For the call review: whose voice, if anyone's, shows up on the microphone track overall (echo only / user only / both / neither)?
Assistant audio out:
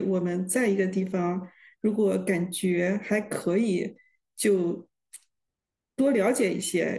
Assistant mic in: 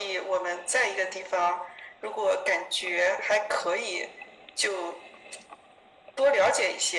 echo only